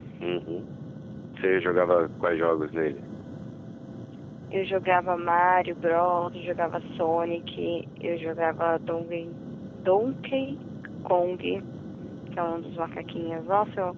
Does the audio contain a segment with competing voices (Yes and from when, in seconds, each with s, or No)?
No